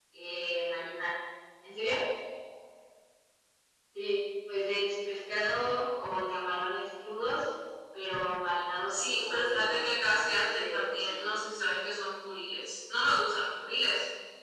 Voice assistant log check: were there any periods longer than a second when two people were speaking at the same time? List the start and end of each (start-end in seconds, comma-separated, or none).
8.9-11.3